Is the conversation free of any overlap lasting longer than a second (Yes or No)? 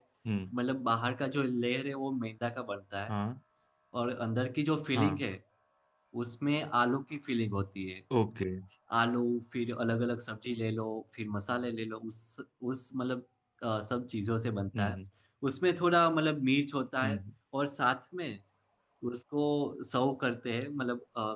Yes